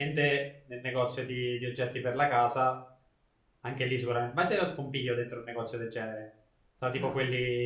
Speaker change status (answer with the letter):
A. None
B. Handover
A